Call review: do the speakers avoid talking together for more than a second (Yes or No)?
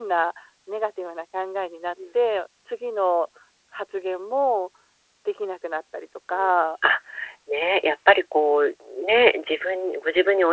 Yes